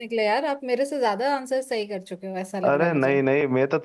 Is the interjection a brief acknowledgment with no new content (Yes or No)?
No